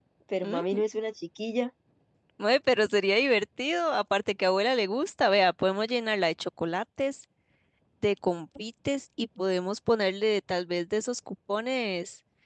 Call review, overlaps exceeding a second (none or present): none